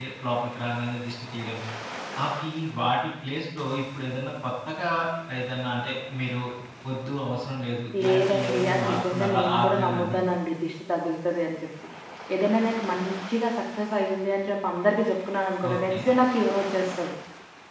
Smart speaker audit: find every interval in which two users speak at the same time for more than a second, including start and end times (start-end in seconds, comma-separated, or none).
8.0-10.2